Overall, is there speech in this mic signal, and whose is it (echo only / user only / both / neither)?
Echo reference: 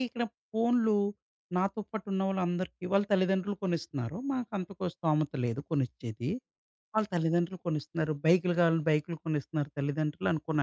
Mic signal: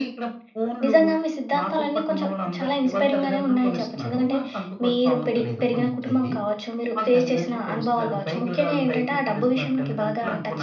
both